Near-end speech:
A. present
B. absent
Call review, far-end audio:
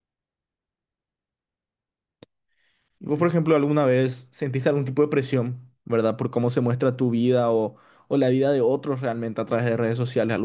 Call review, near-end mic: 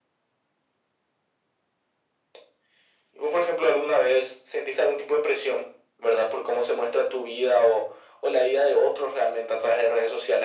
B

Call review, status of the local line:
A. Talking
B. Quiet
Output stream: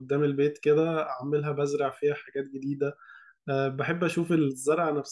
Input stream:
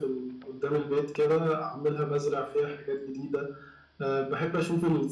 B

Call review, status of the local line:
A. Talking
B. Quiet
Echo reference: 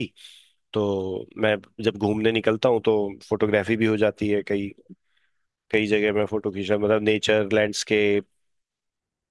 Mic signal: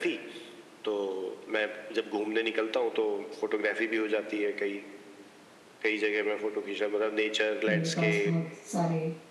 A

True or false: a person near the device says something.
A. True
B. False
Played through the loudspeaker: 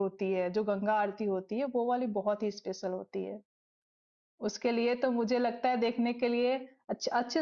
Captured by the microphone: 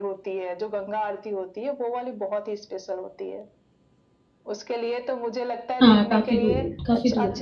A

